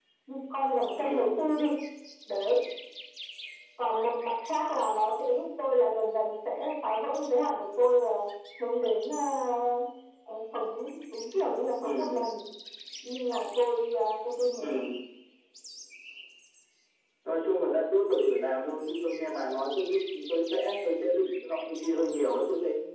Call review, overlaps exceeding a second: none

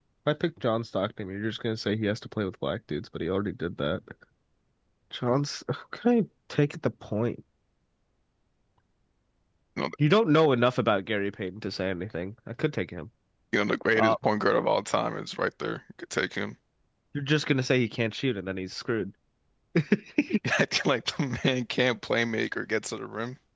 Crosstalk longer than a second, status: none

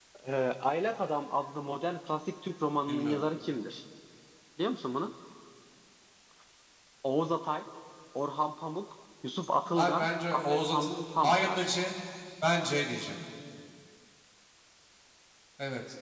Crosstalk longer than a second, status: present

